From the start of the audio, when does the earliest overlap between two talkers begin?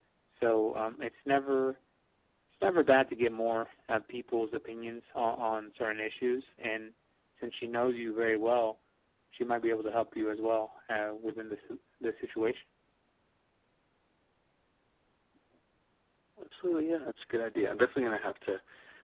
none

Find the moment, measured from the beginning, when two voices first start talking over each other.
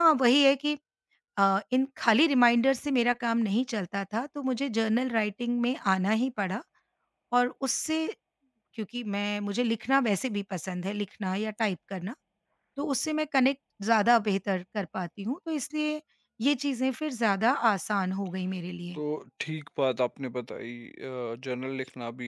none

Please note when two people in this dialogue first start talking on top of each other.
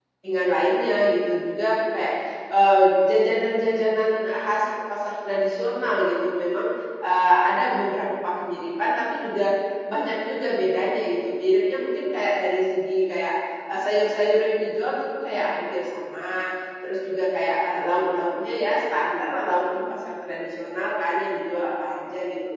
none

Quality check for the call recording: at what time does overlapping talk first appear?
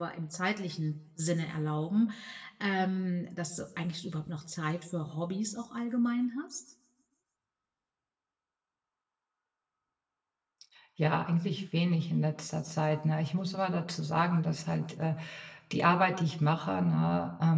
none

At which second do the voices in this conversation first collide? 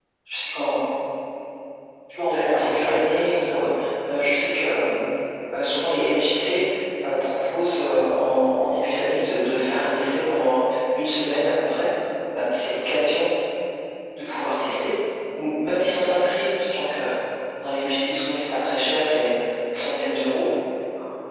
2.2 s

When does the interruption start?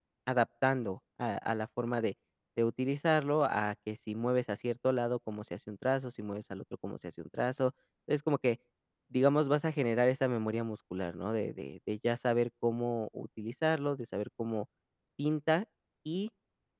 none

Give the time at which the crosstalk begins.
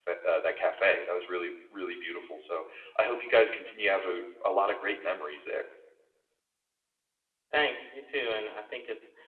none

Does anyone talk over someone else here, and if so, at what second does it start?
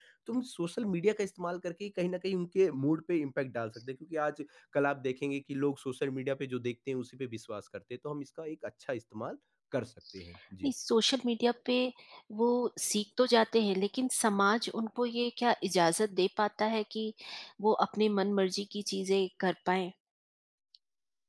none

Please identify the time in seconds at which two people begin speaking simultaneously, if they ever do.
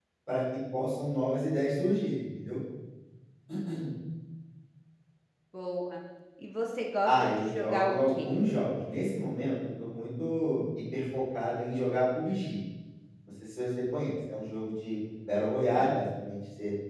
7.1 s

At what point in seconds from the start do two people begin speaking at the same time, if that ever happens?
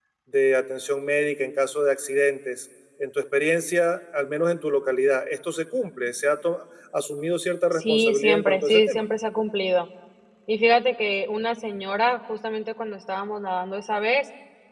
7.7 s

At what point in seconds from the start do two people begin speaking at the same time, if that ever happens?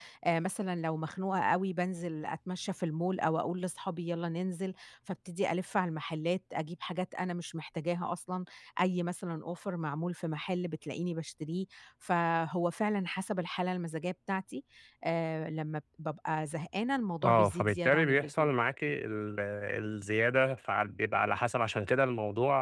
17.2 s

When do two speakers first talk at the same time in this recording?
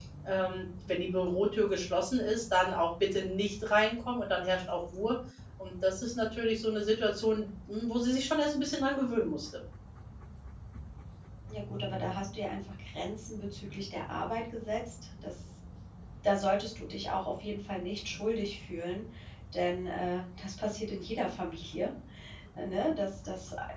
none

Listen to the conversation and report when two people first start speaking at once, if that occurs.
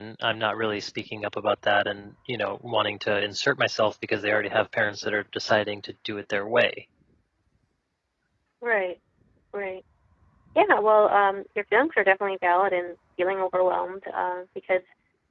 none

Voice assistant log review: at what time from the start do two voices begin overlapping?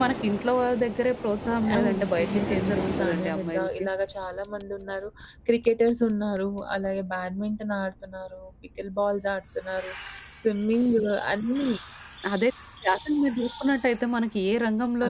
1.6 s

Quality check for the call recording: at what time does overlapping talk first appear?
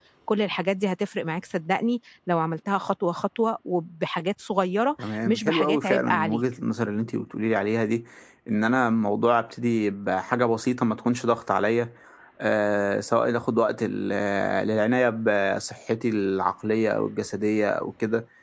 5.0 s

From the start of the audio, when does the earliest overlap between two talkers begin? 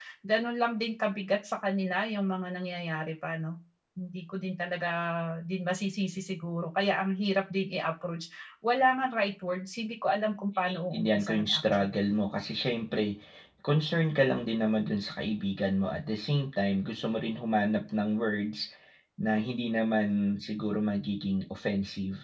10.6 s

